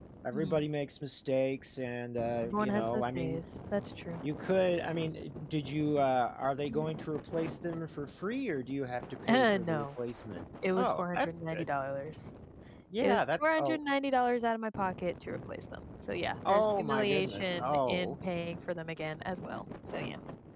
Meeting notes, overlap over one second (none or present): present